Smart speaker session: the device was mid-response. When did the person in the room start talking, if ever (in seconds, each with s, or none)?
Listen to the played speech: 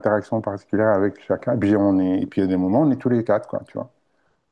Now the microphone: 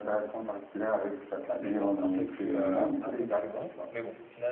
1.6 s